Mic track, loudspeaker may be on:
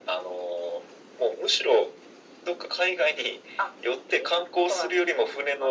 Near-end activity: none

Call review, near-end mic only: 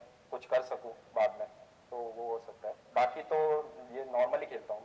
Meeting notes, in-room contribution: none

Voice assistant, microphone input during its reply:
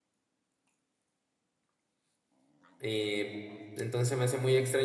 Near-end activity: present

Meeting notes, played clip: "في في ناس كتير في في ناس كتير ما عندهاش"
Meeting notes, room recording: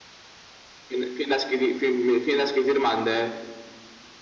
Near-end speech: none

